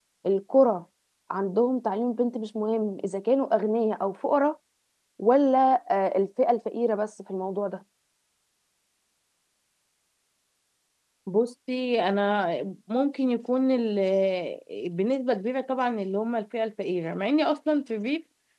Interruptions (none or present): none